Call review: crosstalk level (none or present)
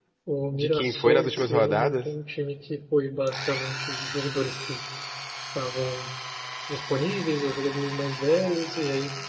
present